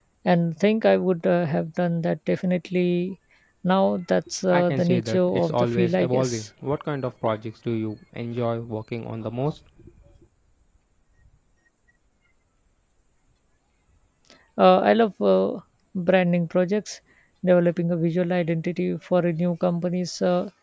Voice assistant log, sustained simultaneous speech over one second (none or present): present